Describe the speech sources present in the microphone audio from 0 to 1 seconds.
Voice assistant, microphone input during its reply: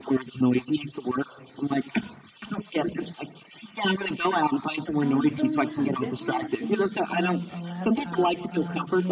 echo only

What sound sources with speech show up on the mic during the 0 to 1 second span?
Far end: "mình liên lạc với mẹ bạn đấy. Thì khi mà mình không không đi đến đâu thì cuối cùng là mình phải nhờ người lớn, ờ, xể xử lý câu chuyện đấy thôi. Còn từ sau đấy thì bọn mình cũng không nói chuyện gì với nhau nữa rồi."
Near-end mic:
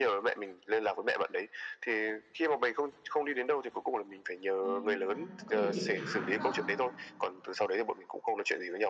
echo only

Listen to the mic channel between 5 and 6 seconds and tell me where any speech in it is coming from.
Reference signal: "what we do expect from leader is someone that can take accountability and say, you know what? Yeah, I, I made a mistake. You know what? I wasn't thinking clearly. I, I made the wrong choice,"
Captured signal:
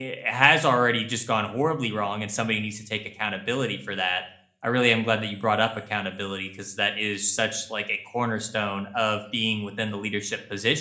user only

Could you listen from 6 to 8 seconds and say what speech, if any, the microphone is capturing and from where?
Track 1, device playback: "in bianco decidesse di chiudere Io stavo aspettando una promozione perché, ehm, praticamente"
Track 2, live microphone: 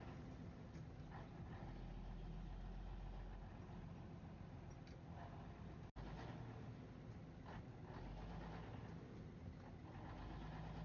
neither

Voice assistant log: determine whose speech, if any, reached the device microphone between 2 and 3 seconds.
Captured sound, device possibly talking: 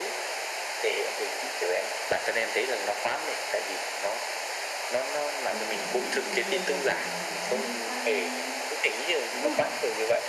echo only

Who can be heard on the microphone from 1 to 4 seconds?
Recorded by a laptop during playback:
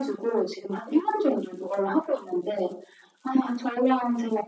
echo only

